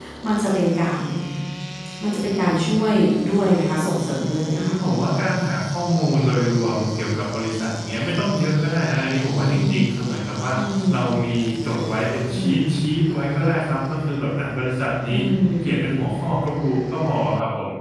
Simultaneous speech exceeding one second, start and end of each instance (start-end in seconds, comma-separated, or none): none